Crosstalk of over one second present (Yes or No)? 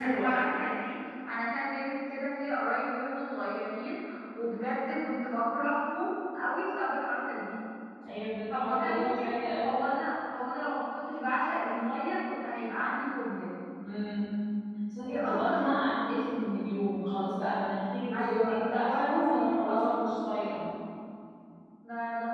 Yes